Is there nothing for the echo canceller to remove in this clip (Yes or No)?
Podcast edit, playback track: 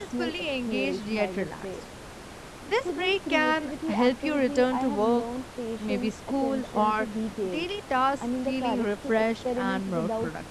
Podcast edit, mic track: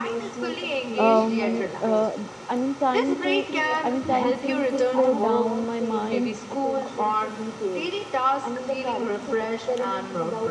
No